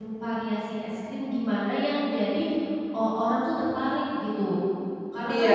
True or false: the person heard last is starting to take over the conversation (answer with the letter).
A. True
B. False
A